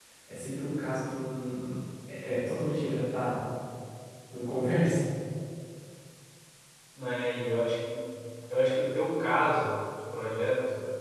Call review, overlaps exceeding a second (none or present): none